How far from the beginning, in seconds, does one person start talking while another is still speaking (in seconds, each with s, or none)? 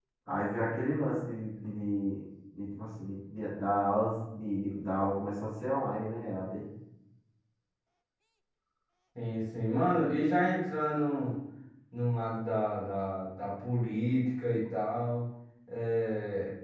none